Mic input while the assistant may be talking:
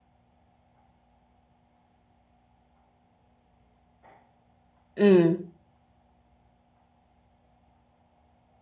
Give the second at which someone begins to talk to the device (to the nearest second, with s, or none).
5 s